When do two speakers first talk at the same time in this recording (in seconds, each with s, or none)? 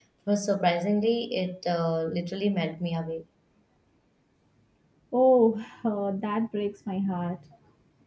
none